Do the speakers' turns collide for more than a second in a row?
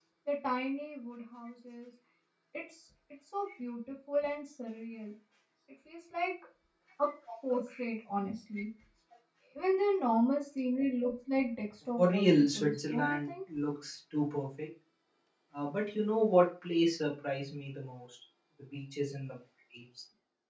Yes, from 12.0 s

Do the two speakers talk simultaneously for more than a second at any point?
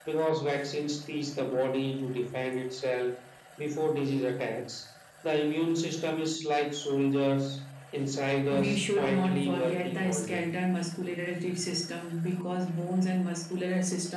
Yes, from 8.5 s

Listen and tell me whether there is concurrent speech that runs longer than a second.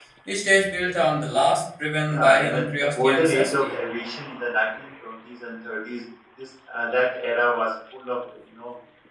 Yes, from 2.1 s

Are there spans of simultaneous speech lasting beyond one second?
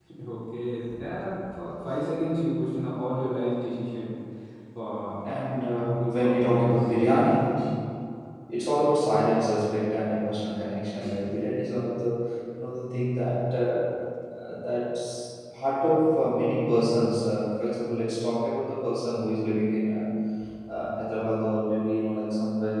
Yes, from 5.7 s

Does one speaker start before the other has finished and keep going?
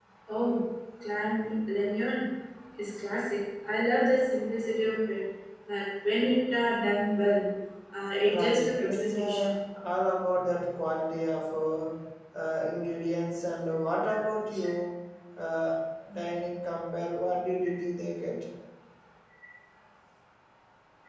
Yes, from 8.3 s

